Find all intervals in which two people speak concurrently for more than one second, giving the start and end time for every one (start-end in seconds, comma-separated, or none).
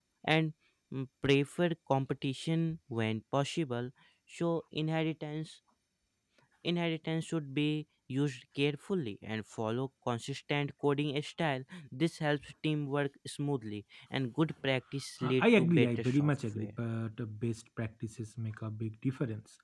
15.2-16.8